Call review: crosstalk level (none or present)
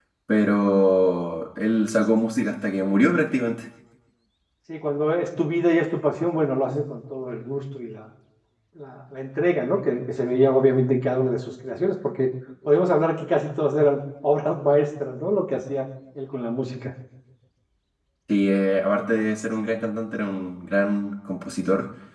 none